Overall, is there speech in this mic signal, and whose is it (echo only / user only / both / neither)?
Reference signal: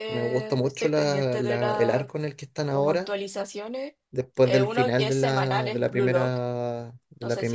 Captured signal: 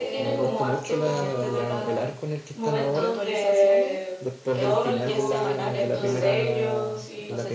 both